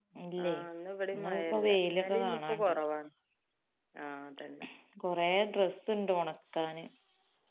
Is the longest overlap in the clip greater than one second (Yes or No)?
Yes